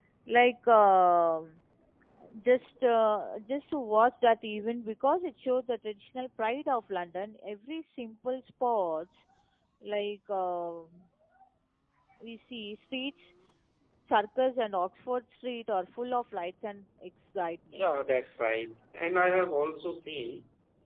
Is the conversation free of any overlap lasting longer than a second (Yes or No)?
Yes